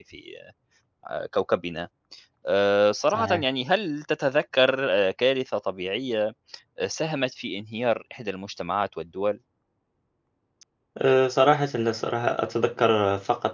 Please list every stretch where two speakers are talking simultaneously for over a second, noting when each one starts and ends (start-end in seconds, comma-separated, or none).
none